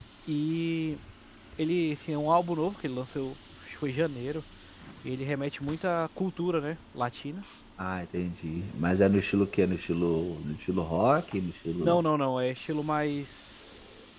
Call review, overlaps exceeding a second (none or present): none